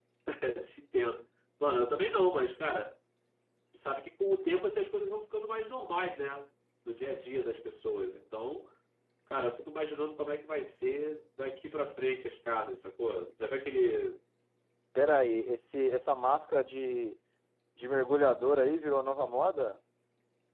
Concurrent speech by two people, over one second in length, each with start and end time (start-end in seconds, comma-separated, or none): none